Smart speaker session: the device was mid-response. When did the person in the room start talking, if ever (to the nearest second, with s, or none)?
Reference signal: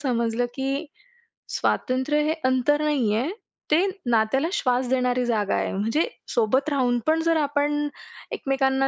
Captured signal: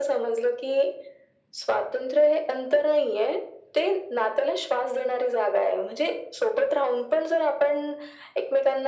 none